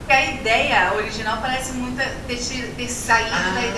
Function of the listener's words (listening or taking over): taking over